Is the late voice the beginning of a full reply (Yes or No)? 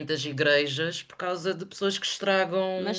Yes